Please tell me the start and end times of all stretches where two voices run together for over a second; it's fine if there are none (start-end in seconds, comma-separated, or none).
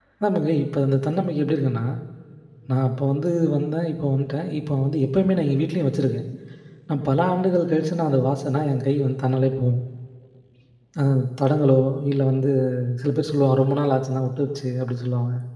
none